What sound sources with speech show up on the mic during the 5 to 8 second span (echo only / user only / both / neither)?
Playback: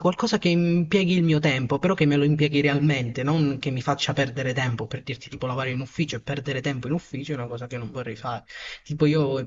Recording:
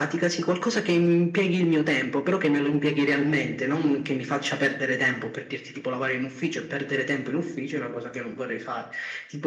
echo only